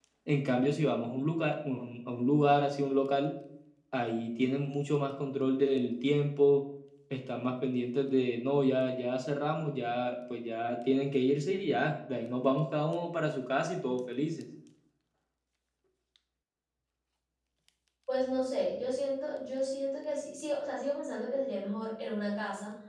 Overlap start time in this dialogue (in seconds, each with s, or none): none